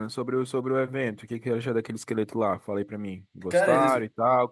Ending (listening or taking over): listening